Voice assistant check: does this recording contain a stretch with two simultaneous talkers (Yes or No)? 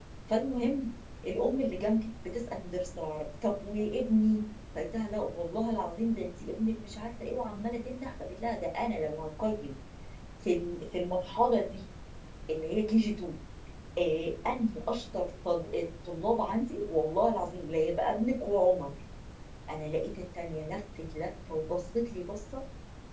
No